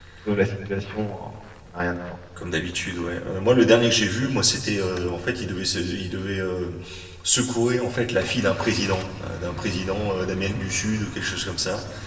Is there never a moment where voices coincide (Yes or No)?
Yes